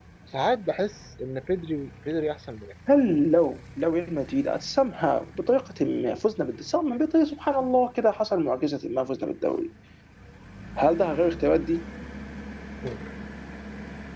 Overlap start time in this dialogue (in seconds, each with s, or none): none